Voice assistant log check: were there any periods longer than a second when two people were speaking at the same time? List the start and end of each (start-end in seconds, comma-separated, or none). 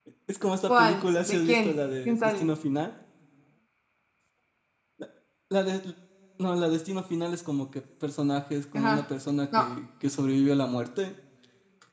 0.7-2.5